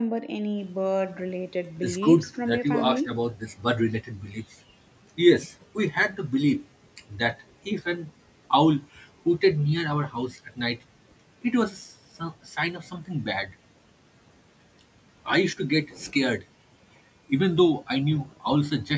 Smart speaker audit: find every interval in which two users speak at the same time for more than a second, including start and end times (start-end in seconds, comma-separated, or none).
1.8-3.1